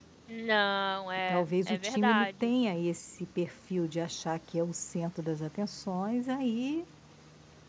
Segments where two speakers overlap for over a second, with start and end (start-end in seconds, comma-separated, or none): 1.3-2.5